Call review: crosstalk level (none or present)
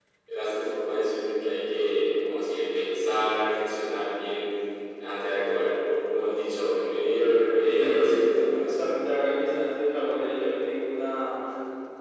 present